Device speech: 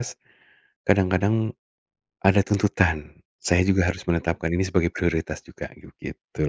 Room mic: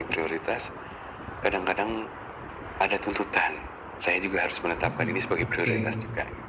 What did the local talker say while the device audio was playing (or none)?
Mhm, oke.